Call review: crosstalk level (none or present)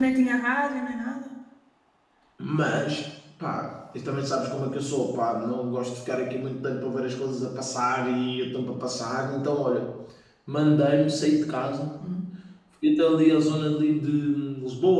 none